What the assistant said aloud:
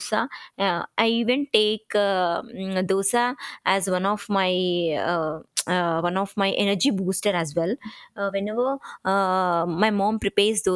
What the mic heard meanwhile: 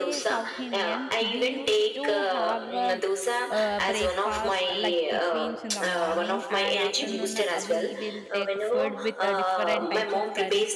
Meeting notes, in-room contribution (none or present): present